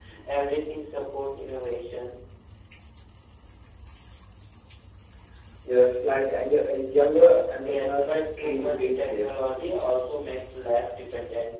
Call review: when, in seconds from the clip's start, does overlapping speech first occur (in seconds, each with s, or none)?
7.6 s